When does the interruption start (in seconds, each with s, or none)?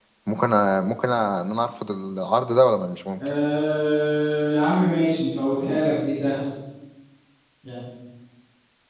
none